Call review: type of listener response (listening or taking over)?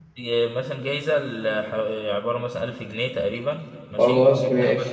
listening